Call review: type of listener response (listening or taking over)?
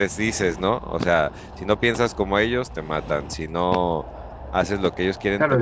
taking over